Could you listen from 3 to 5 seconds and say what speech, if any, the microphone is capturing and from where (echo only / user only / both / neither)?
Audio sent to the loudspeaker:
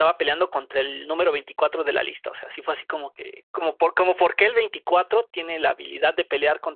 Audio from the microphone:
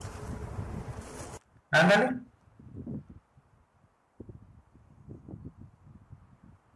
neither